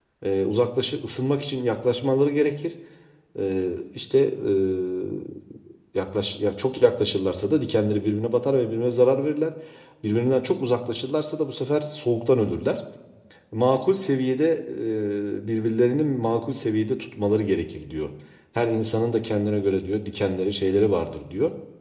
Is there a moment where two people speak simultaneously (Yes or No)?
No